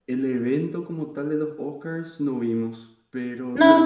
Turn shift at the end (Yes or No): No